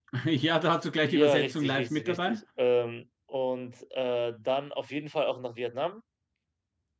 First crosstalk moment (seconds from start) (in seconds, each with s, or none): 1.1 s